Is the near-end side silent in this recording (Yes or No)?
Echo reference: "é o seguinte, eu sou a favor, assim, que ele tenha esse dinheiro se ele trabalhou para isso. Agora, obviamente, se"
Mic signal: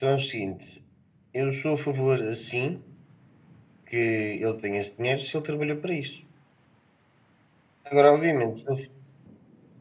Yes